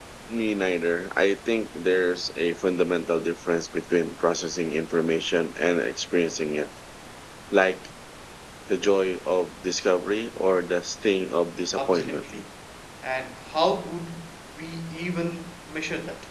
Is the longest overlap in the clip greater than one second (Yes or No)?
No